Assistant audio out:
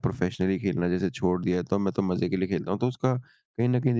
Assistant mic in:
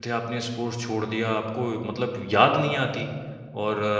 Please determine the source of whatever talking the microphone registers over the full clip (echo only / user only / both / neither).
user only